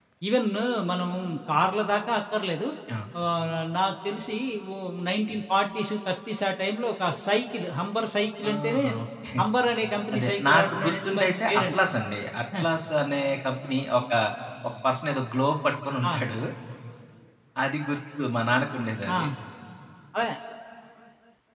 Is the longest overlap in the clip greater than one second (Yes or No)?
Yes